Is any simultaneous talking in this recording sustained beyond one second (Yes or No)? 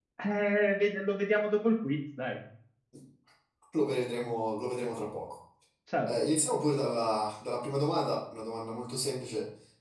No